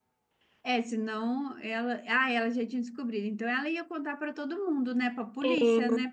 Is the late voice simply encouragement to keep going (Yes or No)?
No